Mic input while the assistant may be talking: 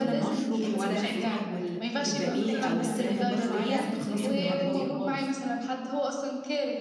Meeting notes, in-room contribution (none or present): present